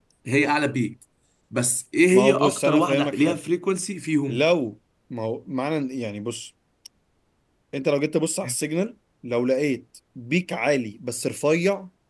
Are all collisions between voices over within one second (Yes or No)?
No